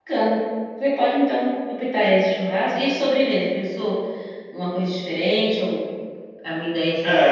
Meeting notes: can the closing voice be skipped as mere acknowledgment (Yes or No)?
No